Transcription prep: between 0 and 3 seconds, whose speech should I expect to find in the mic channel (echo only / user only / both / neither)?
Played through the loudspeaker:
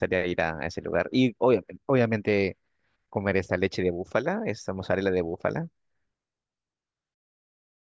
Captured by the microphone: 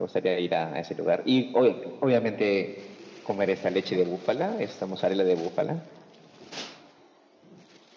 echo only